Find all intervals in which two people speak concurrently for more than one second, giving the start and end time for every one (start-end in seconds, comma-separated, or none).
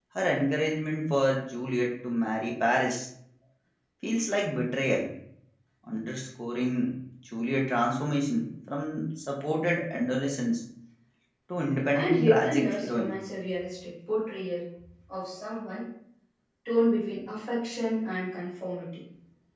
11.9-13.1